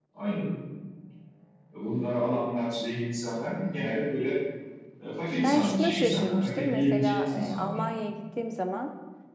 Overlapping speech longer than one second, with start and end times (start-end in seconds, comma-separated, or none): 5.4-7.8